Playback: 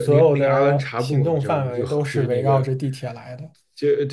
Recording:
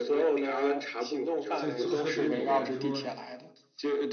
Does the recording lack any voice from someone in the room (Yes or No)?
No